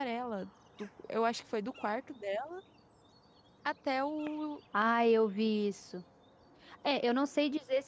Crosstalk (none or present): none